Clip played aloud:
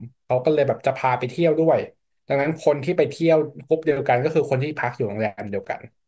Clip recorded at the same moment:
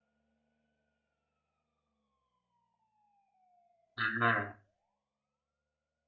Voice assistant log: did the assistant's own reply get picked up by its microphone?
No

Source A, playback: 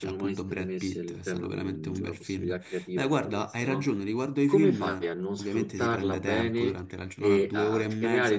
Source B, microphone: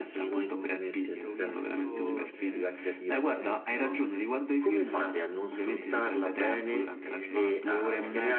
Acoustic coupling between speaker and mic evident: Yes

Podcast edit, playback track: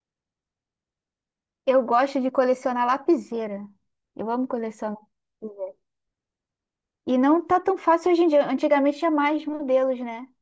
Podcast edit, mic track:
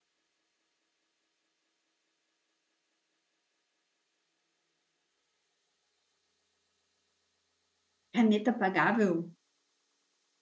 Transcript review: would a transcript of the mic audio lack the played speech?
Yes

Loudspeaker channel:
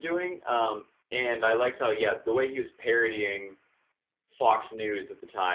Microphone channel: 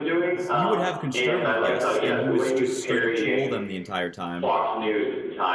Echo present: Yes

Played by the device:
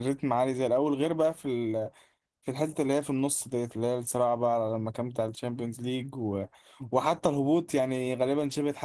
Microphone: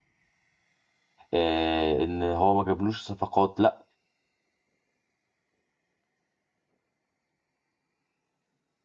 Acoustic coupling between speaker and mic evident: No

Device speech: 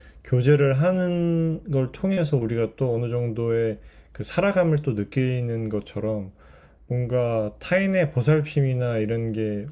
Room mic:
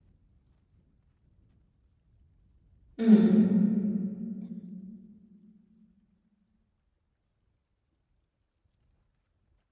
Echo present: No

